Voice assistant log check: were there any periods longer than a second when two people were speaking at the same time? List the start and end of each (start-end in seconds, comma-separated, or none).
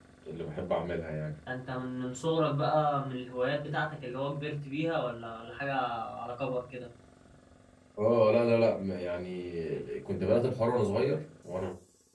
none